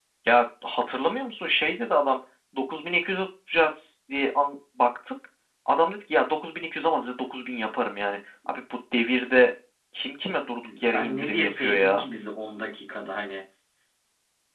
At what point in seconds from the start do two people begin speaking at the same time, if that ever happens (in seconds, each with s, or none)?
10.8 s